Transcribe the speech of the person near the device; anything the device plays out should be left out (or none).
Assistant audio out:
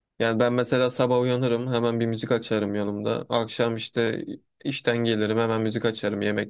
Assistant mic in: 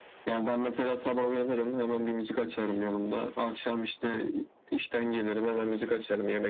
none